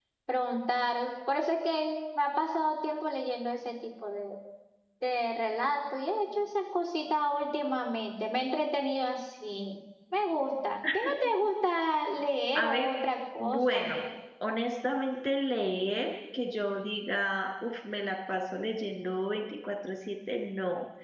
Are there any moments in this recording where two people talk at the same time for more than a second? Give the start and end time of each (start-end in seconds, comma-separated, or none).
none